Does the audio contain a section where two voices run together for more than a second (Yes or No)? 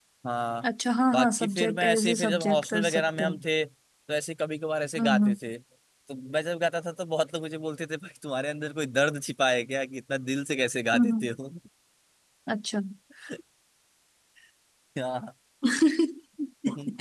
Yes